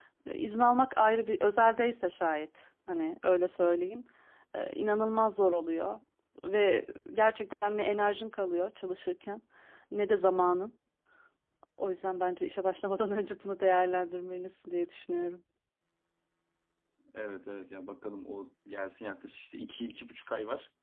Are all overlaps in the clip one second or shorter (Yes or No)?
Yes